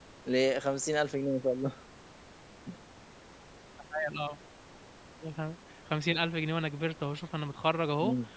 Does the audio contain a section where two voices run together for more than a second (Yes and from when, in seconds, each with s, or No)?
No